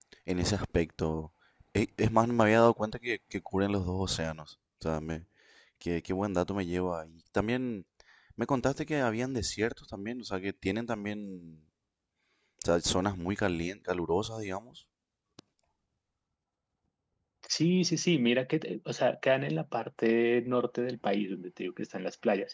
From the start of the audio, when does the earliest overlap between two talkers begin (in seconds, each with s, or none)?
none